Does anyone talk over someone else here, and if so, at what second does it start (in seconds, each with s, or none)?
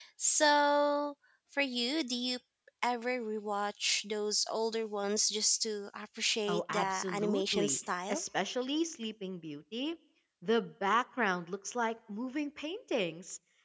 6.5 s